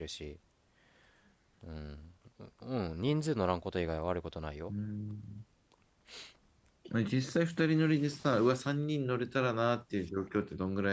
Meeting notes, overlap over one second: none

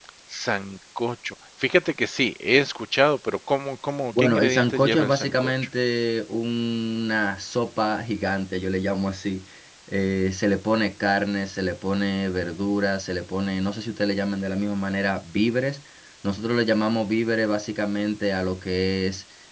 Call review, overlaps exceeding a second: present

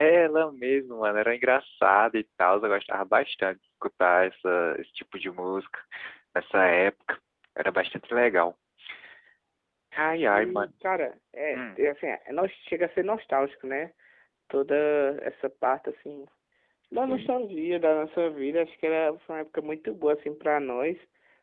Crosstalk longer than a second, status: none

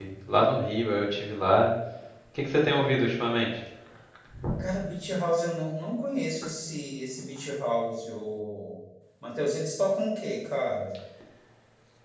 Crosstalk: none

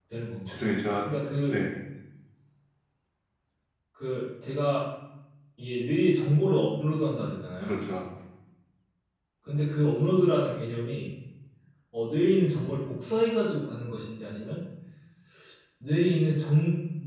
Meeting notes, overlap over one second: none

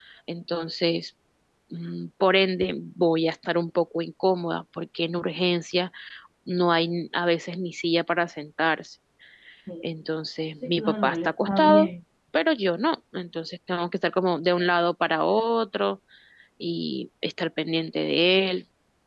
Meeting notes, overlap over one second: present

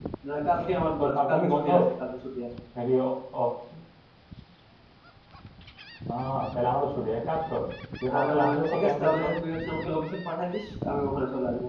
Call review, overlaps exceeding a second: present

